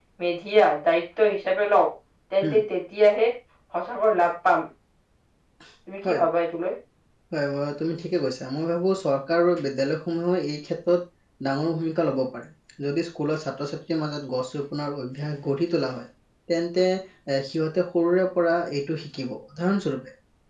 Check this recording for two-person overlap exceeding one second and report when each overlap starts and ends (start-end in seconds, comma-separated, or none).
none